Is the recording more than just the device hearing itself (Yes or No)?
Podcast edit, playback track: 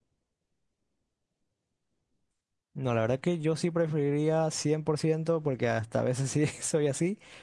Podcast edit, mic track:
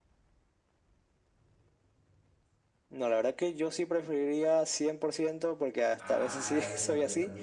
Yes